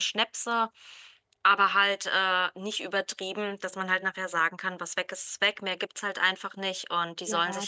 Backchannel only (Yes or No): No